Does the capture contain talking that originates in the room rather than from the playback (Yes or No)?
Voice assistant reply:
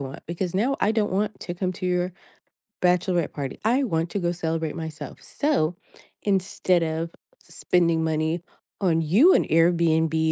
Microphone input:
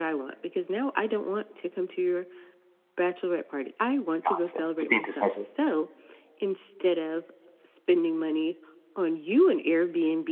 Yes